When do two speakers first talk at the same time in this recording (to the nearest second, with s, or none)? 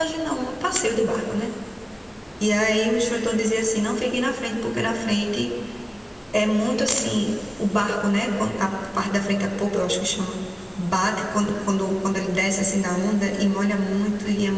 none